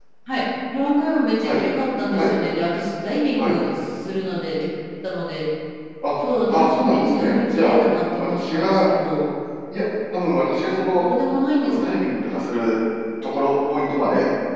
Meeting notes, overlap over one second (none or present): present